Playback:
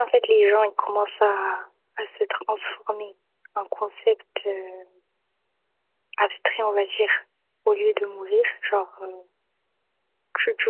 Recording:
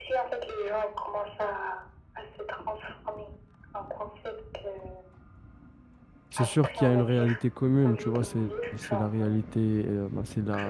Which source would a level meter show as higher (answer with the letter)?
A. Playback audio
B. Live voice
B